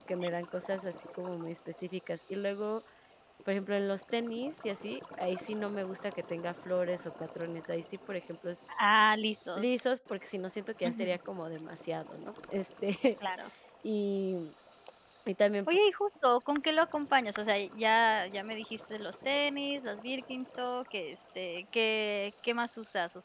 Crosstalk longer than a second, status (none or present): none